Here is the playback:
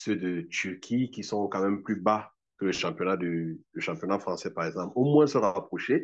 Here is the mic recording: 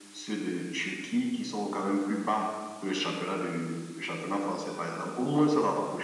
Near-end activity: none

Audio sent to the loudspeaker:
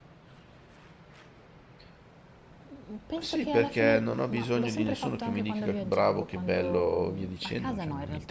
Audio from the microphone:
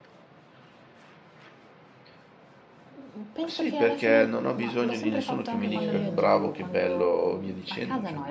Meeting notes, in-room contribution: present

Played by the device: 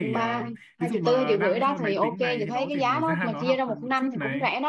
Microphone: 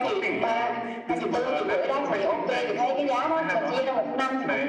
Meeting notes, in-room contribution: none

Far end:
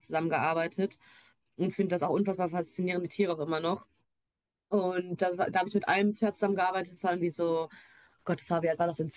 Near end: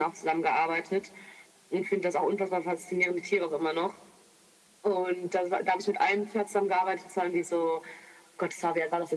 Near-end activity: none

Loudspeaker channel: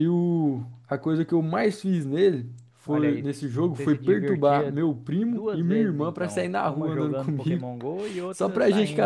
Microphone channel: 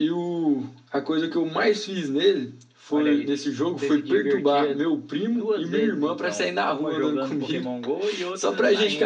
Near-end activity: none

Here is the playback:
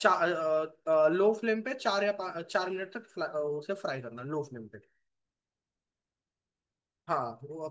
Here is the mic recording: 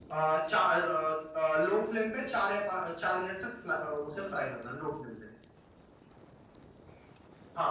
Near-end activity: none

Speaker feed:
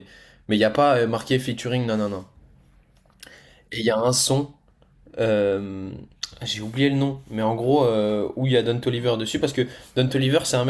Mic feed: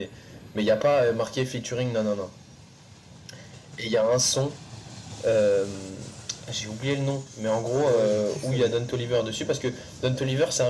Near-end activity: present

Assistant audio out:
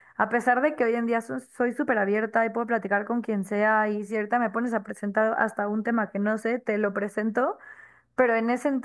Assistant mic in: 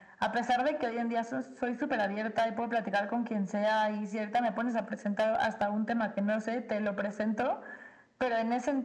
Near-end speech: none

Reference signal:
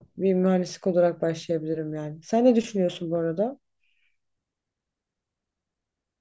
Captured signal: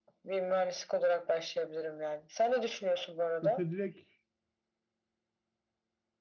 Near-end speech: present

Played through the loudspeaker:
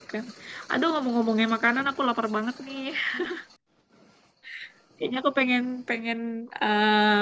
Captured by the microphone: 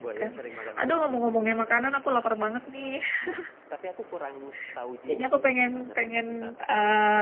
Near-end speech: present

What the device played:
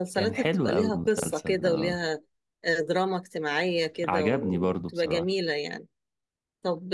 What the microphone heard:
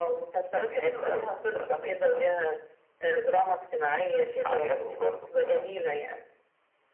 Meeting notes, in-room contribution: none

